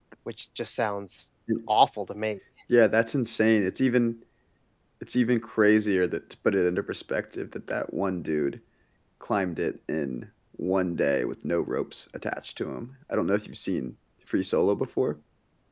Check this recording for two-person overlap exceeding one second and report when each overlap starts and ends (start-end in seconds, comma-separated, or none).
none